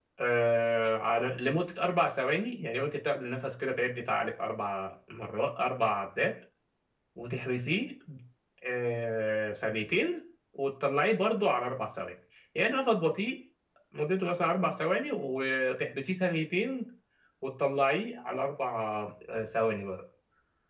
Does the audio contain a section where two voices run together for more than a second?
No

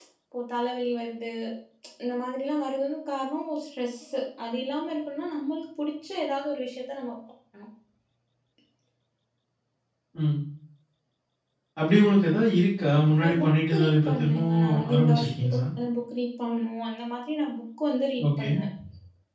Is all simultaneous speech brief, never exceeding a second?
No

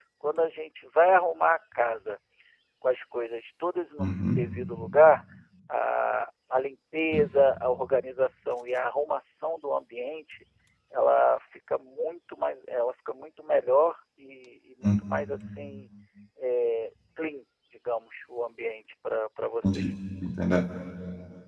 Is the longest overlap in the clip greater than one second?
No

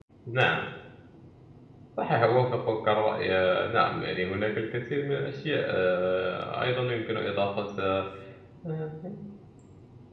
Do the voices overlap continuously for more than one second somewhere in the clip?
No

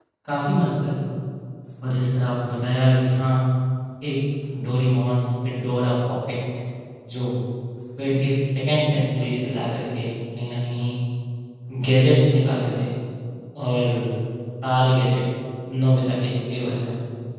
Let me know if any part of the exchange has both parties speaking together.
No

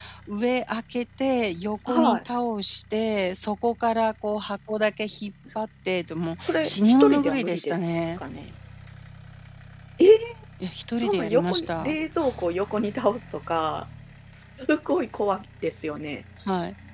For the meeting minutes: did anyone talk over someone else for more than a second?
Yes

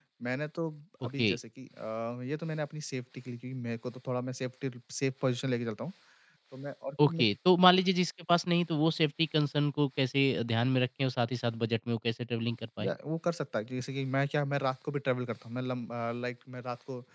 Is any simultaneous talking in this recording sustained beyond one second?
No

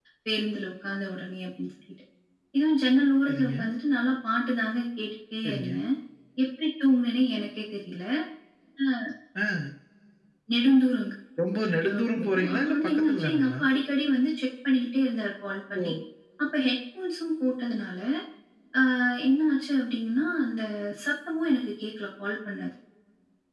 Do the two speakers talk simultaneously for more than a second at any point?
Yes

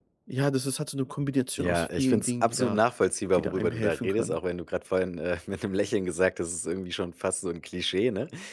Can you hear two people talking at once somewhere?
Yes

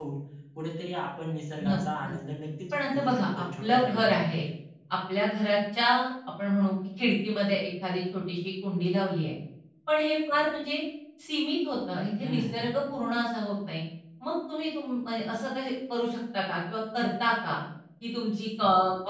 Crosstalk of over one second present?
Yes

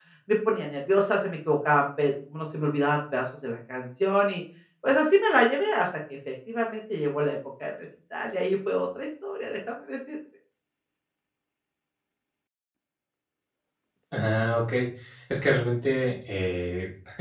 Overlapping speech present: No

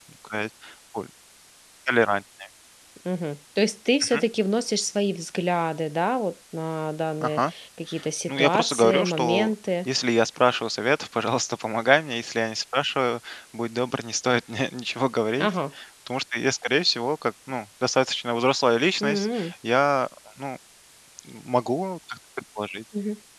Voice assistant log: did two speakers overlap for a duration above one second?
Yes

